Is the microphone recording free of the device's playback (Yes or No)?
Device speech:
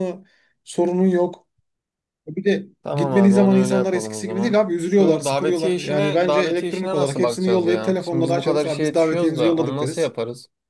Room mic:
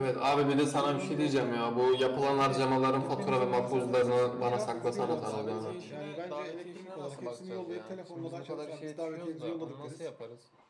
No